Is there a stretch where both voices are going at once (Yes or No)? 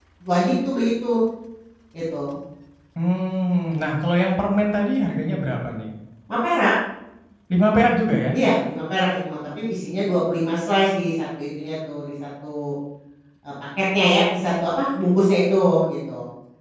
No